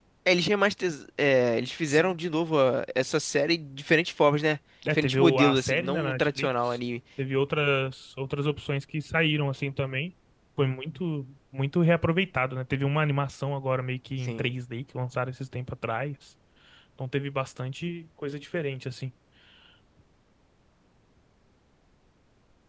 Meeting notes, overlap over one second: present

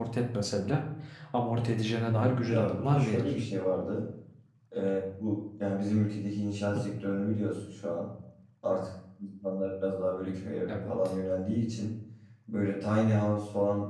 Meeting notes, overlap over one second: present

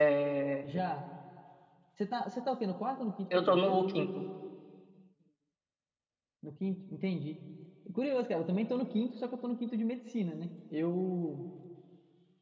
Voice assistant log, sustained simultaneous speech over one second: none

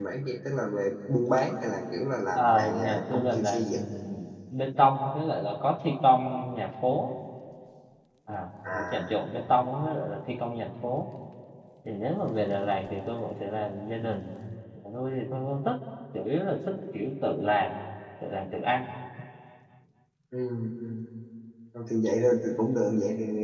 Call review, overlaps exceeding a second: present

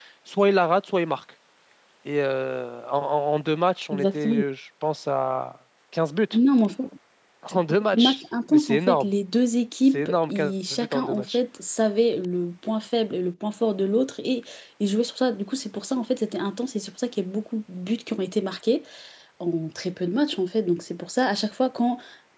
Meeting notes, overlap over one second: present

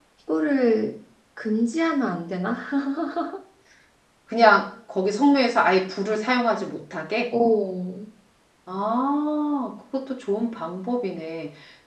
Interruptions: none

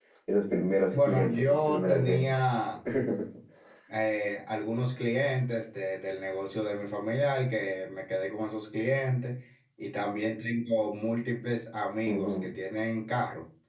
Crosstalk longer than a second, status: present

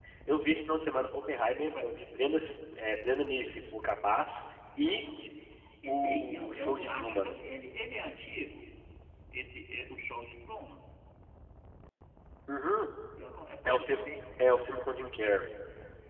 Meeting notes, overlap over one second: present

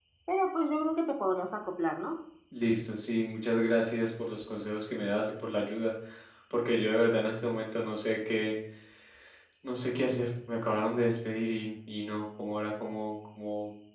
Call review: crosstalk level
none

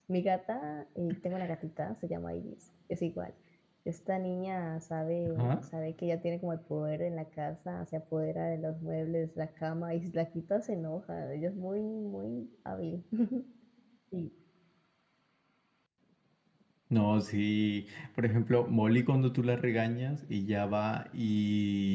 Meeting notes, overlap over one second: none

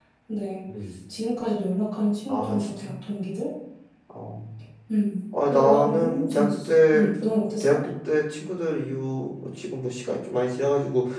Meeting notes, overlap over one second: present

